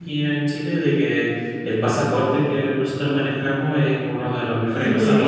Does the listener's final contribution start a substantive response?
No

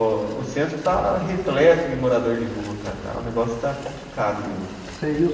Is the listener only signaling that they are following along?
No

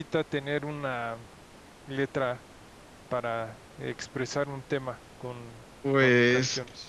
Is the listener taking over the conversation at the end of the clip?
Yes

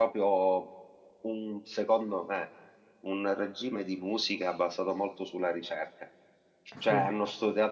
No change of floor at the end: Yes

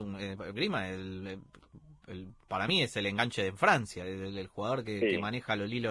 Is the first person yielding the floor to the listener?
No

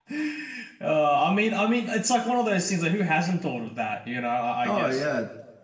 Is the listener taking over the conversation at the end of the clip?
Yes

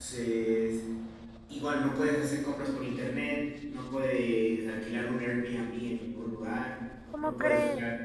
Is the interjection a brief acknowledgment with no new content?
Yes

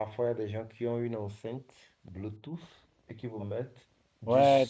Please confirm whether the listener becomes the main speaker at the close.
Yes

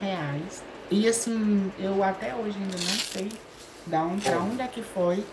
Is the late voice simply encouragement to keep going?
Yes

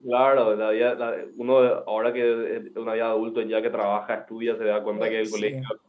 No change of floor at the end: Yes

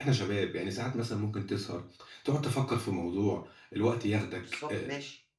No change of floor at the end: No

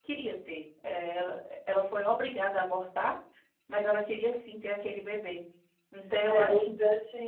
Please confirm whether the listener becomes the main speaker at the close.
Yes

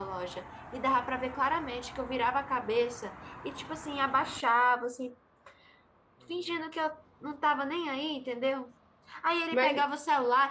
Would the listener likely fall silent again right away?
Yes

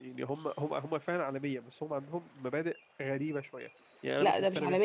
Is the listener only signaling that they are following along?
No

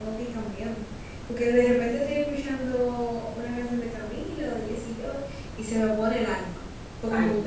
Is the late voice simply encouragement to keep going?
No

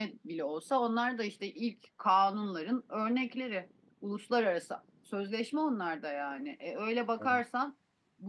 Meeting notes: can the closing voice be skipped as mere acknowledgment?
Yes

